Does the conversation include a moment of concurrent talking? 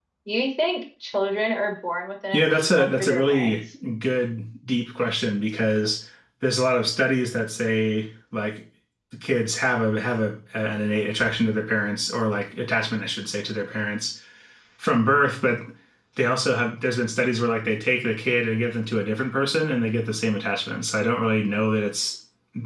Yes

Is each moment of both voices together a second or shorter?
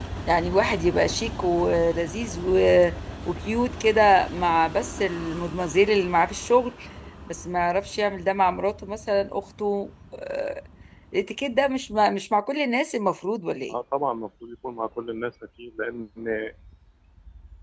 Yes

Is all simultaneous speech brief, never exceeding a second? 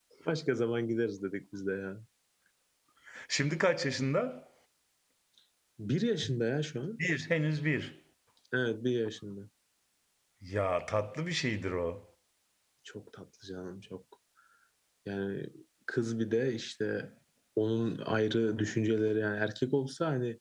Yes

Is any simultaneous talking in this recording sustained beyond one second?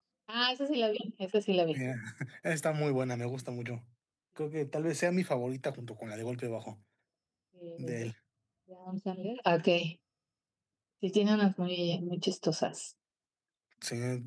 No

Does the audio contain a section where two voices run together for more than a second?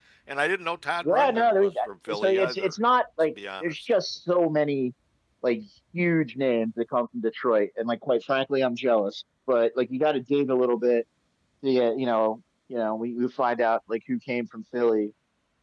Yes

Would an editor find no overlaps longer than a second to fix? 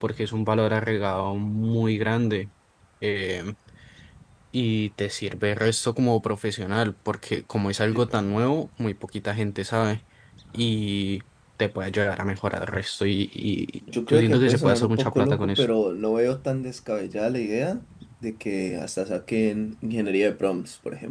No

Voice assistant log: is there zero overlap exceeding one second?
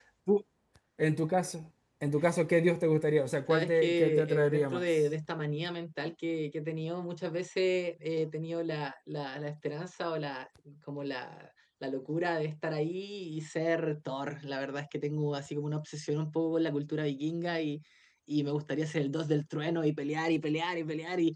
No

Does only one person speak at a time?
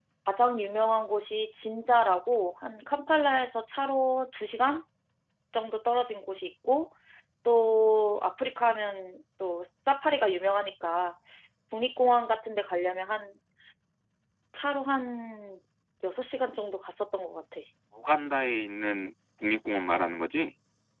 Yes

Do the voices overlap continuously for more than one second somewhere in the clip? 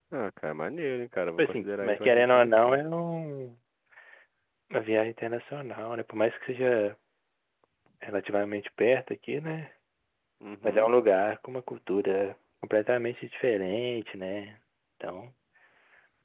Yes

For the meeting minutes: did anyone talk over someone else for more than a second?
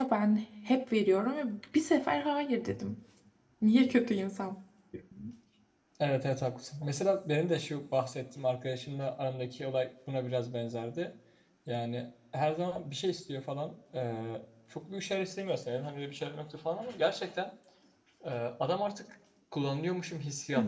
No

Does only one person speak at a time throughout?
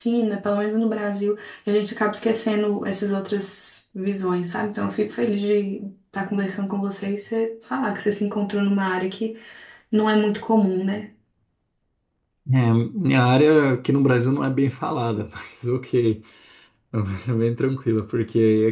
Yes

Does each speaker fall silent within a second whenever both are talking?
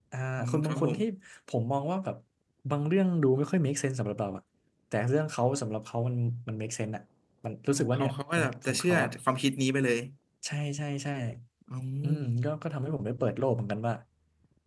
No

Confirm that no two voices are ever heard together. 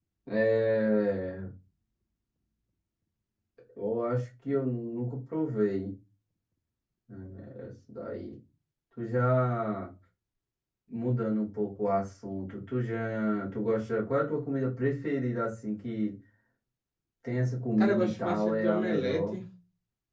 No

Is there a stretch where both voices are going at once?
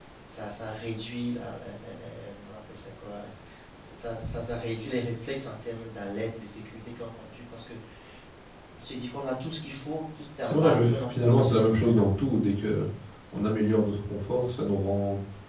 Yes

